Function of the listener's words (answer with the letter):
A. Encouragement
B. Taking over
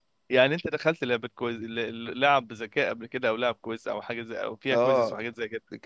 B